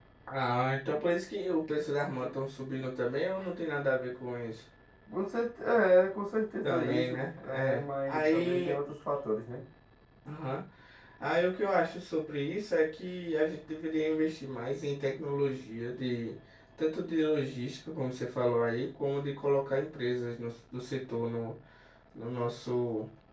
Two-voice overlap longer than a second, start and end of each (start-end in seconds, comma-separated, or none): 6.6-8.8